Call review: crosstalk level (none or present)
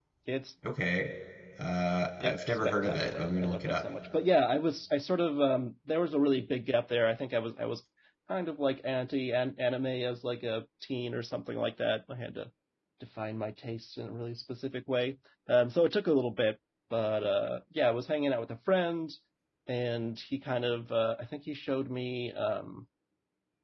present